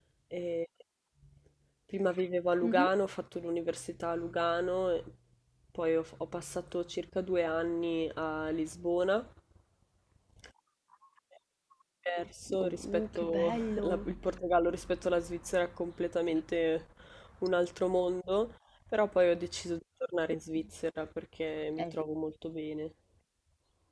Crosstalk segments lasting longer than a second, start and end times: 12.6-14.1

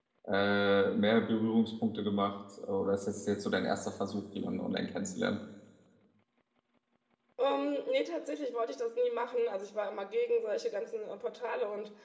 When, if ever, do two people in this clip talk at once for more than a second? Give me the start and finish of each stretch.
none

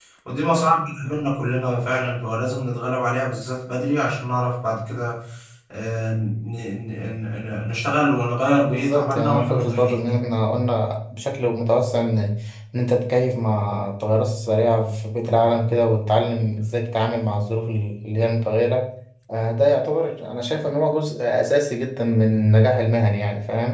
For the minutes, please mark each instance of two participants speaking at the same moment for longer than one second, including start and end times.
8.6-10.2

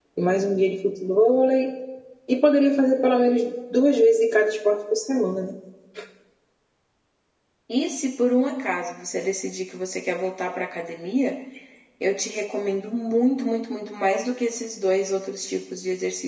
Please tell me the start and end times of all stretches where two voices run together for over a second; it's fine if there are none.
none

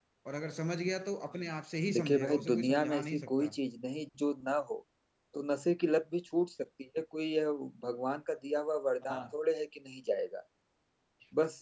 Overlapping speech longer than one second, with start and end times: 1.9-3.5

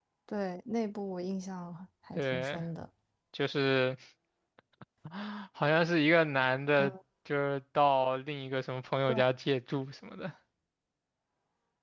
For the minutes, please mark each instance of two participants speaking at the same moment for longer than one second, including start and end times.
none

